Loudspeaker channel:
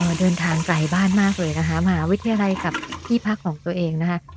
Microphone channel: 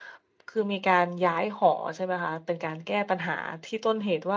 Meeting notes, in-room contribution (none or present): present